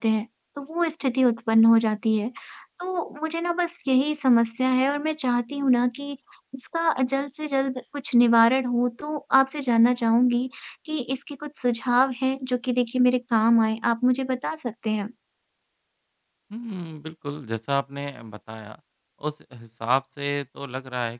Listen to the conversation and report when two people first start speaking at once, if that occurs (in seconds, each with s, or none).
none